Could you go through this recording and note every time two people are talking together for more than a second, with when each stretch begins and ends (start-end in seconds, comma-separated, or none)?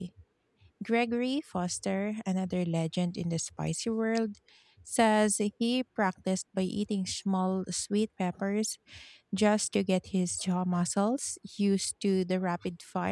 none